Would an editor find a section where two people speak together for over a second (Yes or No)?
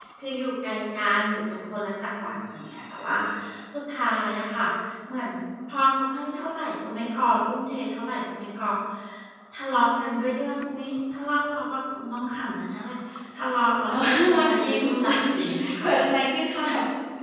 Yes